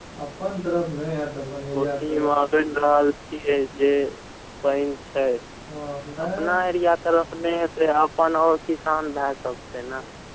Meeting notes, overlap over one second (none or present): none